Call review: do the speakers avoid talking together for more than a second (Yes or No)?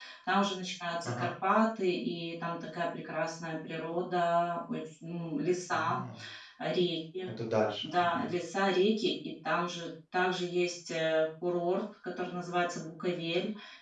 Yes